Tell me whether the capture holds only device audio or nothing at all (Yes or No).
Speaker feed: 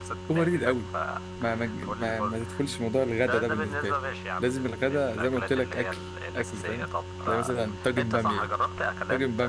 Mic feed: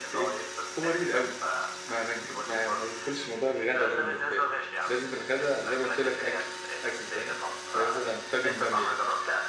Yes